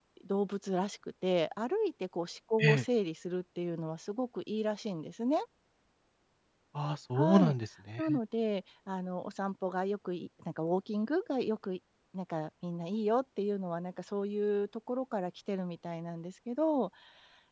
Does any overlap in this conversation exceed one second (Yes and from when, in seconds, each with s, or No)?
No